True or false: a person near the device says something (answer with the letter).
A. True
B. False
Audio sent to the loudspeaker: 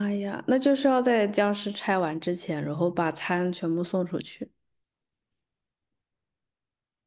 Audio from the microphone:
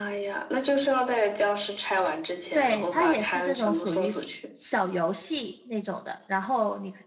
A